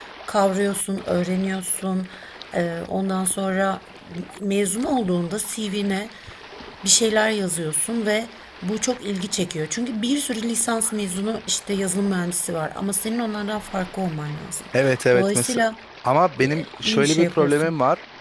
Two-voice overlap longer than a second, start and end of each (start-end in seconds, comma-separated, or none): 16.4-17.7